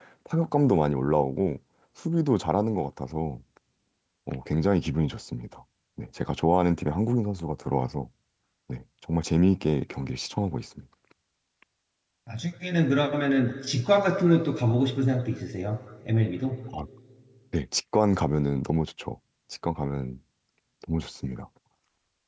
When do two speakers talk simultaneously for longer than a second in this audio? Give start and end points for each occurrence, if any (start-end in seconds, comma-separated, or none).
none